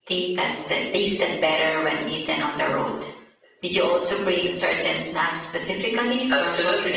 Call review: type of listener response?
taking over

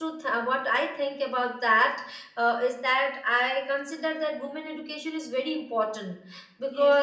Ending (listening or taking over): taking over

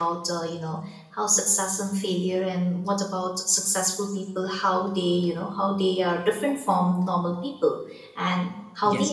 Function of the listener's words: taking over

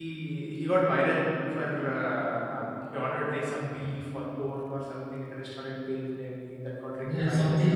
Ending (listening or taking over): taking over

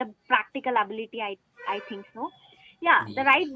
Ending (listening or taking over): listening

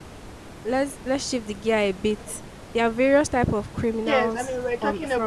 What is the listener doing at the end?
taking over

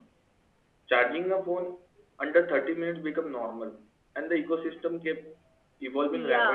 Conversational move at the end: taking over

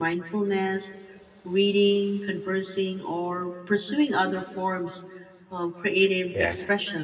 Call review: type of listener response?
listening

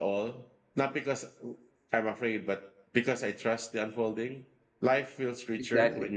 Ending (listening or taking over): listening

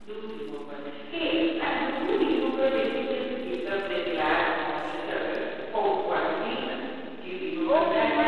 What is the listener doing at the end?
taking over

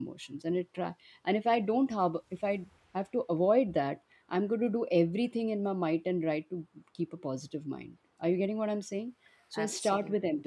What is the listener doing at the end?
listening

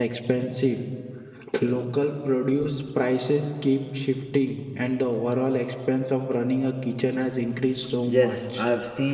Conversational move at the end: taking over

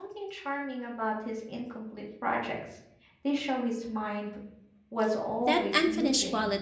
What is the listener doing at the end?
taking over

